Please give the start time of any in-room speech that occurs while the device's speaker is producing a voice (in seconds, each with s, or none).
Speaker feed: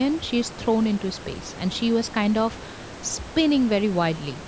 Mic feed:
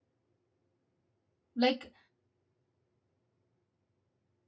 1.6 s